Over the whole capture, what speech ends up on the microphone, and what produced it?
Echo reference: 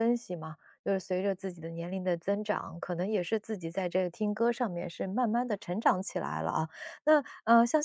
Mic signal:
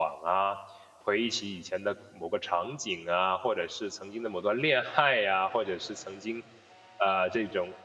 user only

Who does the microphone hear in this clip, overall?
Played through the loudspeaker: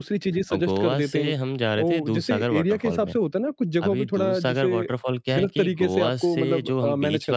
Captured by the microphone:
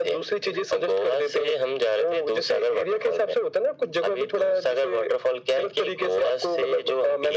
echo only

